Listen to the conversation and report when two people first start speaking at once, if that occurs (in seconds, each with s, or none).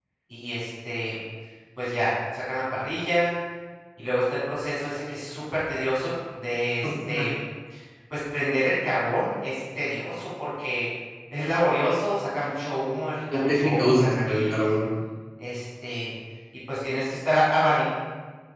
13.3 s